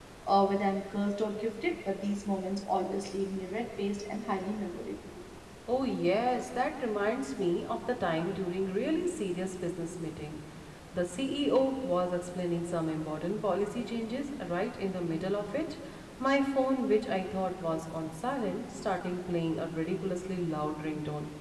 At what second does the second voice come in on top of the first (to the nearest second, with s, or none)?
none